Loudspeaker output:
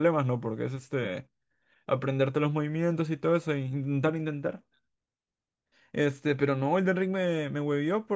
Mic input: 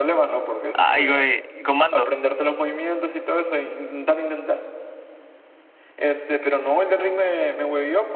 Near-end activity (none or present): present